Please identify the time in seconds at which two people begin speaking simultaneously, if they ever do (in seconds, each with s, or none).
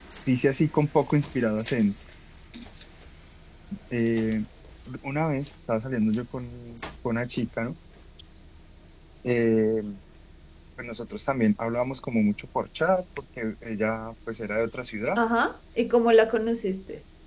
none